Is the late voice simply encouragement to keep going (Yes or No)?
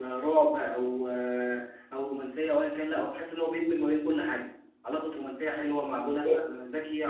Yes